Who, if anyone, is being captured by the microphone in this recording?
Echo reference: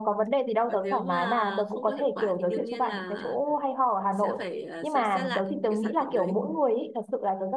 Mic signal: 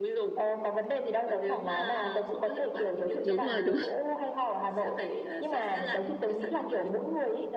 both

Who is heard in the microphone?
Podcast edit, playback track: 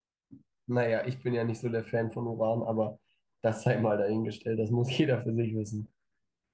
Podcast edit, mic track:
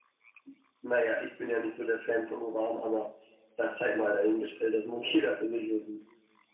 echo only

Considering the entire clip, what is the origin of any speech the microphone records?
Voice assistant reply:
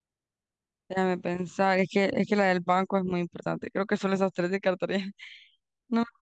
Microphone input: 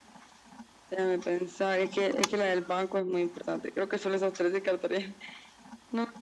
echo only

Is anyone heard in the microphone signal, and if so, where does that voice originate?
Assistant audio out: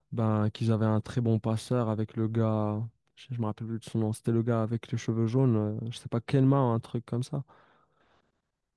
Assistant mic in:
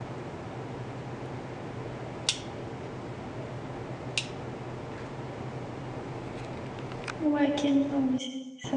user only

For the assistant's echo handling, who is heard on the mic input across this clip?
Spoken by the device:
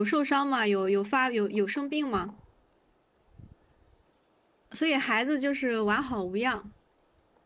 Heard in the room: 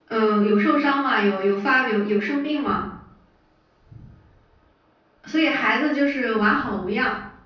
echo only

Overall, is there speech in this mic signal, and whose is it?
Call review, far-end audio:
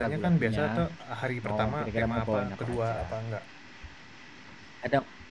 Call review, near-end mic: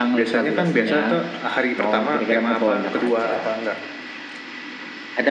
echo only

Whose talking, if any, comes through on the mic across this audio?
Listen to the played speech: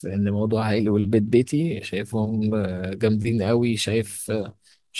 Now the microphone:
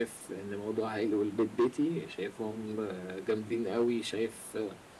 echo only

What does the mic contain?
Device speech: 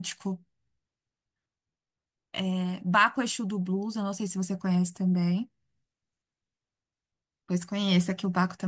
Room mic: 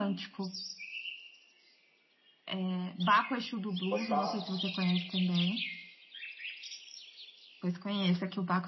both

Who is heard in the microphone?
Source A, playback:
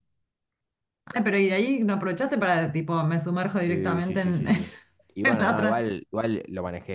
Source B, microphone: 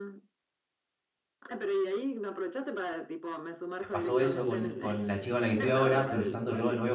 both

